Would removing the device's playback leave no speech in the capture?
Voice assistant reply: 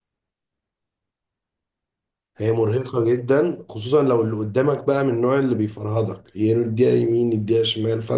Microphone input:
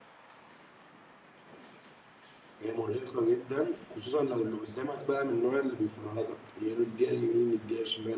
Yes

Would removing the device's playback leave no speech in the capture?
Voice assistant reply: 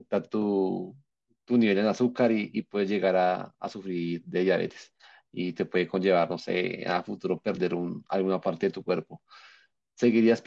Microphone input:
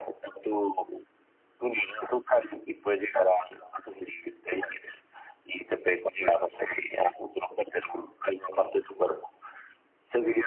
Yes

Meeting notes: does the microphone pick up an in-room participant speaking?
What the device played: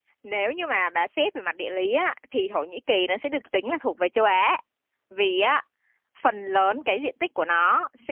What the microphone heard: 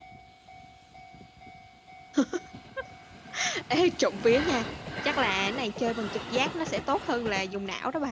Yes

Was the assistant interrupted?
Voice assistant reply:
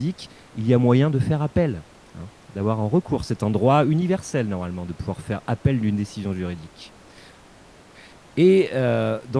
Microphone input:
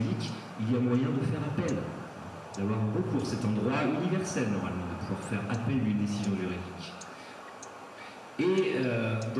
No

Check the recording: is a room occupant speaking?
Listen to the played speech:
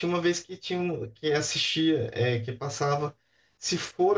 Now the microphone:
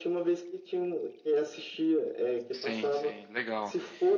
Yes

